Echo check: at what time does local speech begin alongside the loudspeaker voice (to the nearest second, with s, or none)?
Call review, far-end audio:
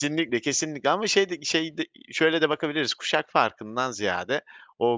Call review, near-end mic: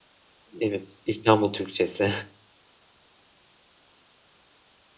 1 s